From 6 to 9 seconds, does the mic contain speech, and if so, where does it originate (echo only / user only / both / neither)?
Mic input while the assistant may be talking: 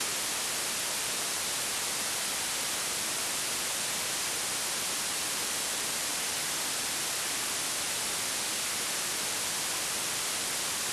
neither